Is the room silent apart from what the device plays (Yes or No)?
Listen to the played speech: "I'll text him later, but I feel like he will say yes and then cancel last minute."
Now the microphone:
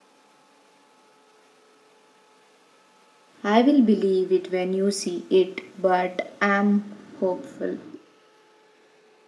No